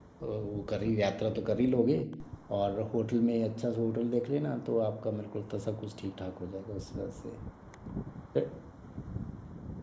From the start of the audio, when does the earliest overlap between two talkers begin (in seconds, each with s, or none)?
none